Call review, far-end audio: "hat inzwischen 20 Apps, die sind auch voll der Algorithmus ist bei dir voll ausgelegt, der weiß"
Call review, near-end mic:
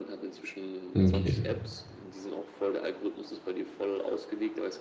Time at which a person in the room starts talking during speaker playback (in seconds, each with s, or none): 1.0 s